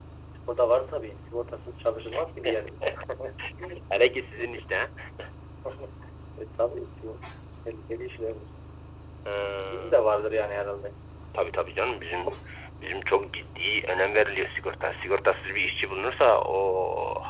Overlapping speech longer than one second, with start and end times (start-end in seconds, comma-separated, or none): none